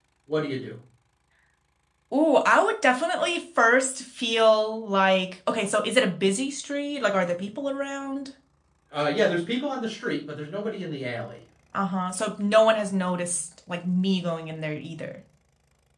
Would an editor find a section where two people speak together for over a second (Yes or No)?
No